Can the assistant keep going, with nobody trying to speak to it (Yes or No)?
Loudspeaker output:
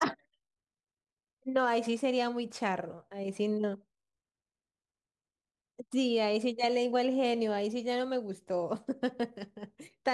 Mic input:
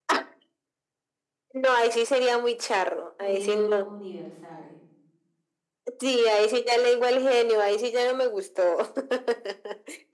No